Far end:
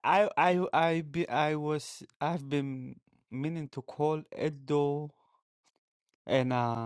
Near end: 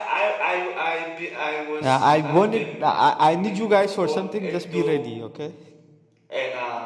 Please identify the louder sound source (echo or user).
user